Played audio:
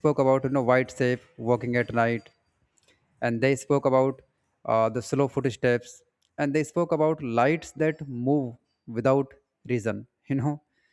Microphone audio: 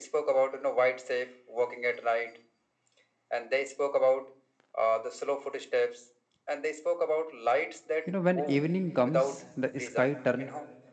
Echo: present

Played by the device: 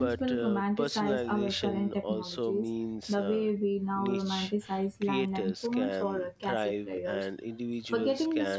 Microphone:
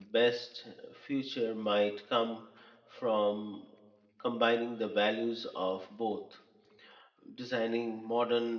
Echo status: none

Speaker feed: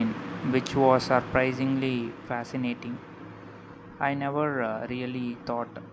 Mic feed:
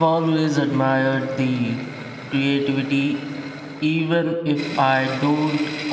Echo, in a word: none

